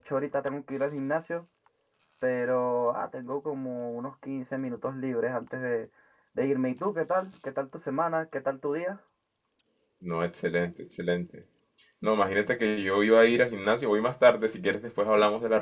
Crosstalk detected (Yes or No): No